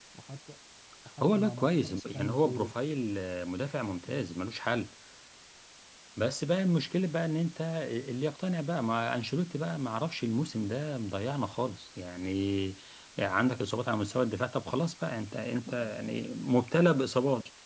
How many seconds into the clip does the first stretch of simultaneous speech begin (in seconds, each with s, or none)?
1.2 s